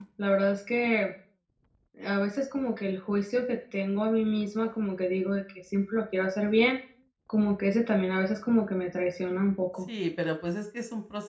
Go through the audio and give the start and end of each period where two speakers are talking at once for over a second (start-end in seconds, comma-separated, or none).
none